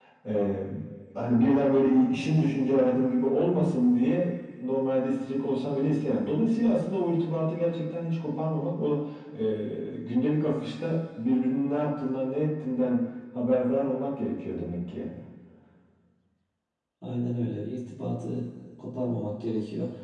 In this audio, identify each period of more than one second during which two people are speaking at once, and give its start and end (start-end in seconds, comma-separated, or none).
none